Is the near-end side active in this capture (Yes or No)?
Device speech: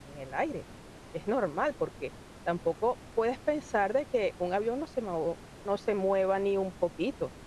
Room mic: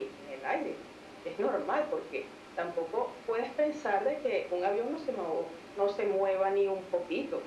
No